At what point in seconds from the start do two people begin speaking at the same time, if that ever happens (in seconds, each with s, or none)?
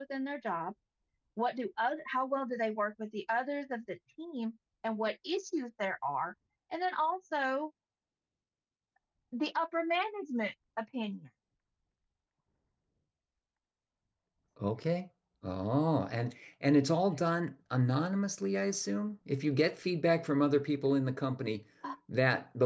none